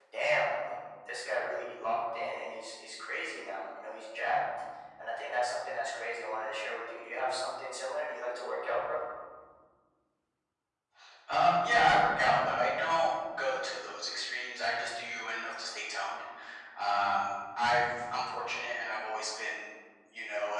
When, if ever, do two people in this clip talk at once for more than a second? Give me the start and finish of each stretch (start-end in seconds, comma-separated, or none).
none